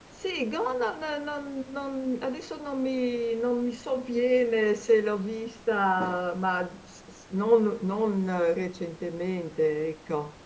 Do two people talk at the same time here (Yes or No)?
No